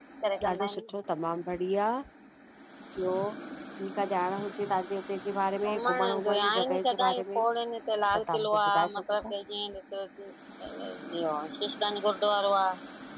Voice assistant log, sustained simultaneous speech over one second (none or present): present